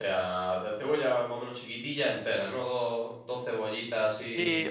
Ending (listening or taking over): taking over